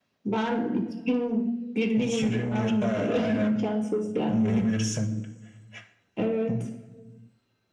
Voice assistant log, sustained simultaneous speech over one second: present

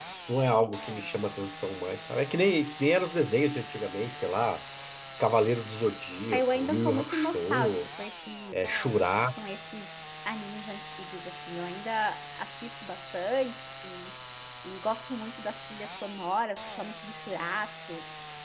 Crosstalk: present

